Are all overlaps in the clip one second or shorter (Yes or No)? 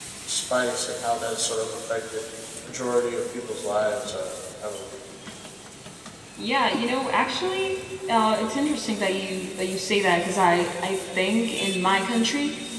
Yes